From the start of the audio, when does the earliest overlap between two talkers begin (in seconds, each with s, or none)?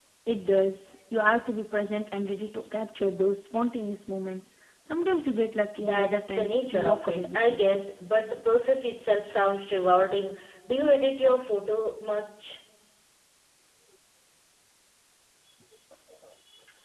5.8 s